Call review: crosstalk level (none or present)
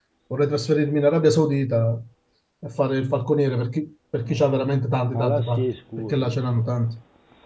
present